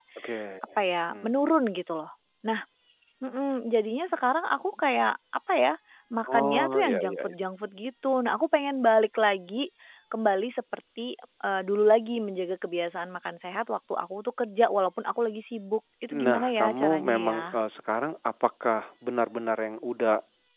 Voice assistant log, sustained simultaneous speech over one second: present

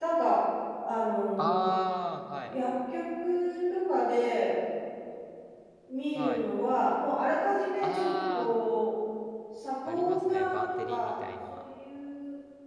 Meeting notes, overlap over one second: present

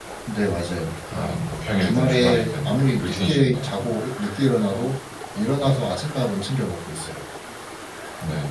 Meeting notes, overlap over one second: present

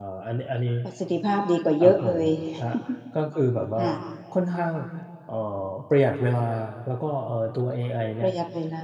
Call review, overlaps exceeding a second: none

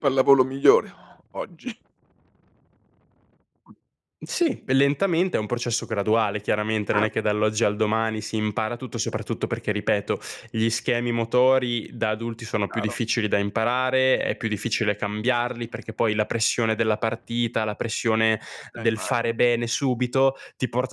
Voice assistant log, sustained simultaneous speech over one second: none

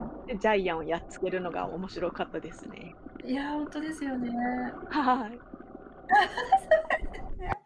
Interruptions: none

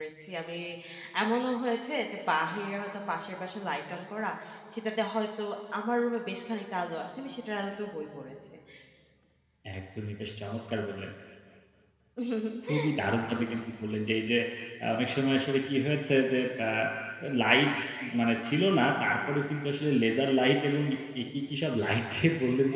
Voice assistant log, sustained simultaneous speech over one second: none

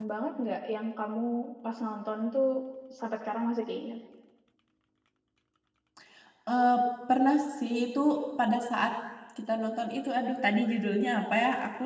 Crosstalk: none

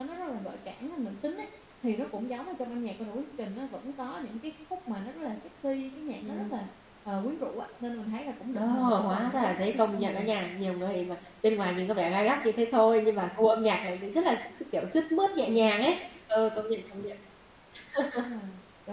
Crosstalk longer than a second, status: present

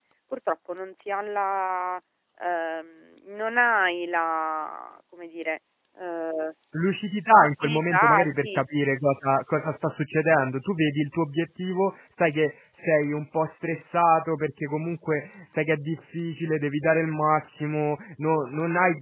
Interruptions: present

